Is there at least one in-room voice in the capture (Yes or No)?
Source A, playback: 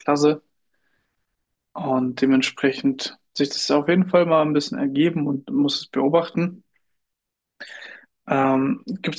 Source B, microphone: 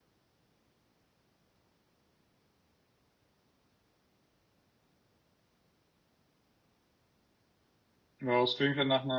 Yes